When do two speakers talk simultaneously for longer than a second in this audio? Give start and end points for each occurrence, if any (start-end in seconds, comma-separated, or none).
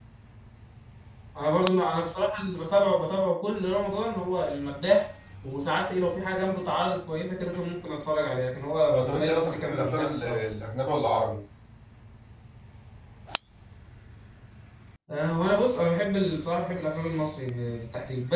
8.9-10.4